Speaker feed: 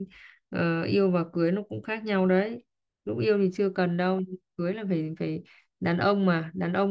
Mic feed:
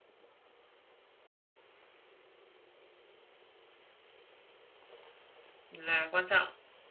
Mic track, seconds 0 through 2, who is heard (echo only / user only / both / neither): neither